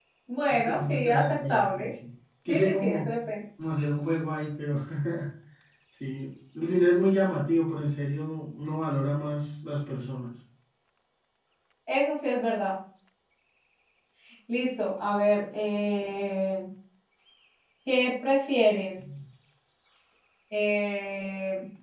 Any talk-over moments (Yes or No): Yes